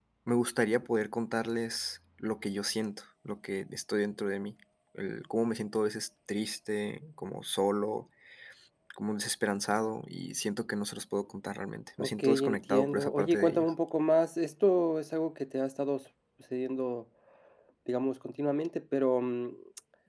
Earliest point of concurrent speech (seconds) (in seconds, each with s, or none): 12.0 s